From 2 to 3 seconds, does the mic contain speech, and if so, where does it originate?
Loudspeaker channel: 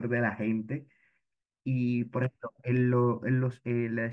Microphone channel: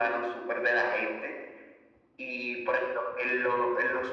echo only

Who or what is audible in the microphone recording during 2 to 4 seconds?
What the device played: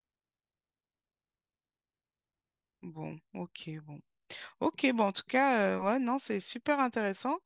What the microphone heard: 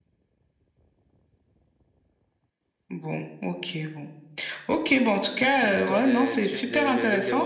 echo only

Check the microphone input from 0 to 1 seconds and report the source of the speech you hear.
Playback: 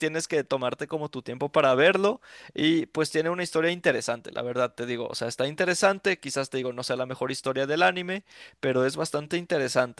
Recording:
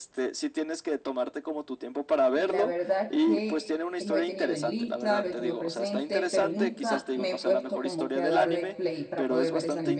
echo only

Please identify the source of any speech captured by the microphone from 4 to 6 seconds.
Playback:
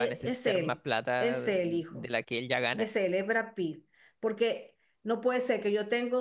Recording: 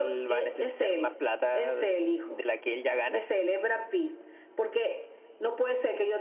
echo only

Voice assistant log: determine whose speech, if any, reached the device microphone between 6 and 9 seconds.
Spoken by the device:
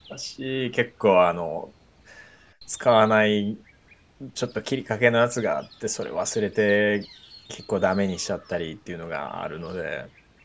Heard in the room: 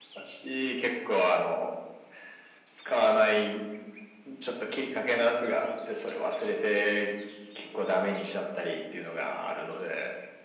echo only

